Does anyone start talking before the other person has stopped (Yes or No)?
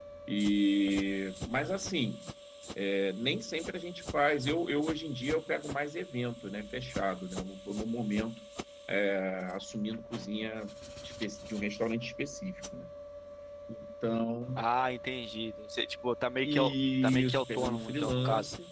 Yes